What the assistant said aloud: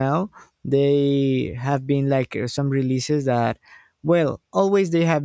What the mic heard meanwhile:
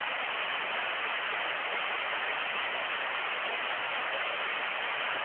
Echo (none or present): none